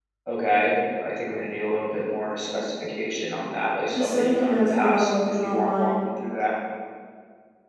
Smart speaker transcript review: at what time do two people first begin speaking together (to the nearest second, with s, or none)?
4 s